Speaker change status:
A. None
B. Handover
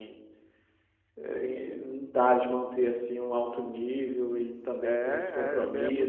B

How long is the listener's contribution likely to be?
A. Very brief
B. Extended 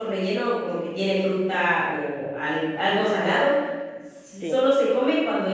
A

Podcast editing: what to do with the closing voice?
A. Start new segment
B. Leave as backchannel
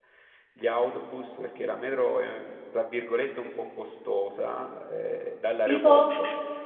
B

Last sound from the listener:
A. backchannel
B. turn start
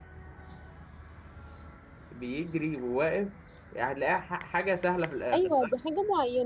B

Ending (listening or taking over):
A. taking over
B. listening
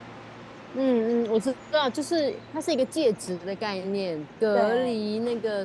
B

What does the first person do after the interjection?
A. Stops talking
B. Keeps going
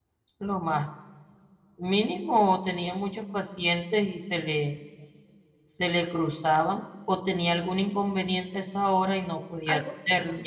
A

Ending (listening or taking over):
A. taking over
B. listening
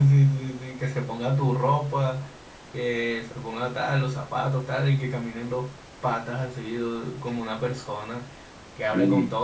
B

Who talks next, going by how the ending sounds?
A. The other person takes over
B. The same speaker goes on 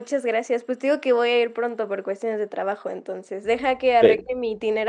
B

